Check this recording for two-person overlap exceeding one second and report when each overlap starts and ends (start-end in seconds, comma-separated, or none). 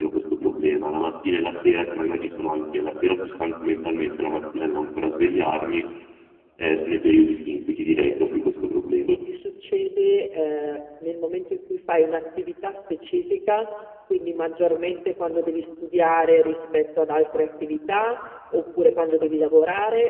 none